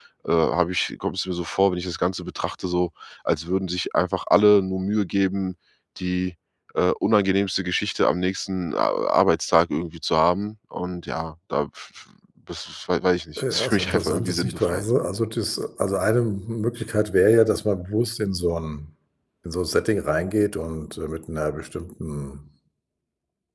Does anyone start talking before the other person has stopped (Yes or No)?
Yes